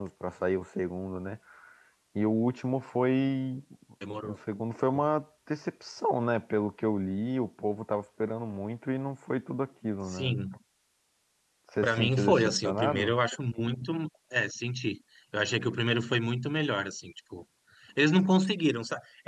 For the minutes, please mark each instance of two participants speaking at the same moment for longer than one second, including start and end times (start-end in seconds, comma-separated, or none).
11.8-13.1